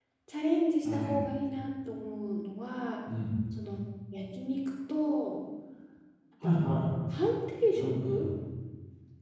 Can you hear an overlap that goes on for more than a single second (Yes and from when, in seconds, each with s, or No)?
No